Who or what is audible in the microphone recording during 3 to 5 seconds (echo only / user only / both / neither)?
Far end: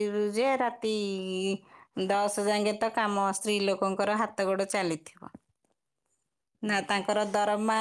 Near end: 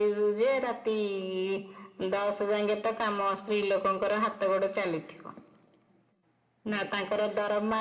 echo only